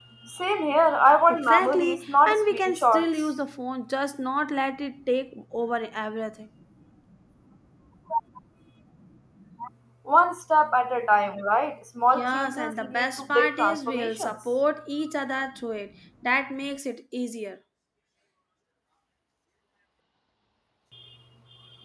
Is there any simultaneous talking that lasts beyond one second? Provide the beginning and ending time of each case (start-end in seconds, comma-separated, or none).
1.3-3.3, 12.2-14.3